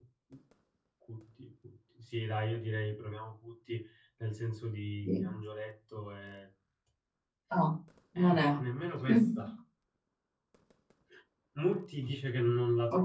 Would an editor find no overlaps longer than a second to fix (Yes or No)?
Yes